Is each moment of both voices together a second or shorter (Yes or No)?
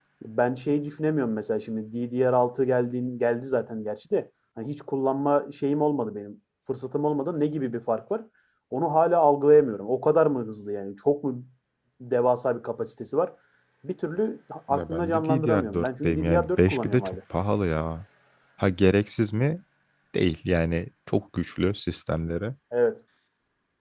No